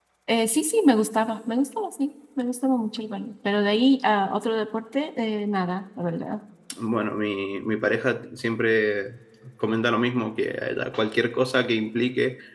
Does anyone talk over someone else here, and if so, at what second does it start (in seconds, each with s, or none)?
none